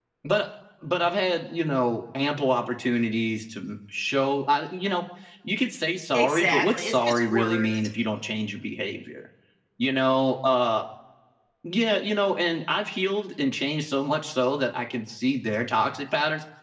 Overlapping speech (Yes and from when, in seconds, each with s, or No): Yes, from 6.1 s